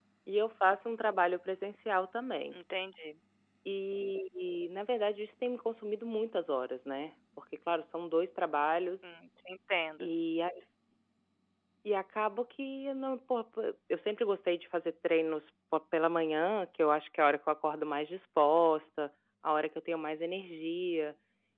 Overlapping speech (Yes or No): No